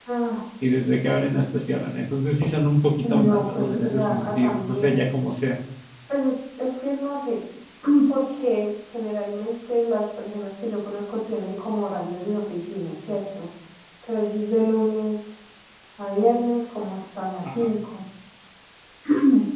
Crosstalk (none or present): present